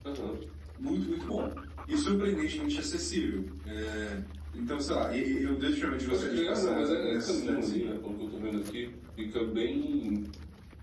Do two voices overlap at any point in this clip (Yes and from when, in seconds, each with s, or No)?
Yes, from 6.1 s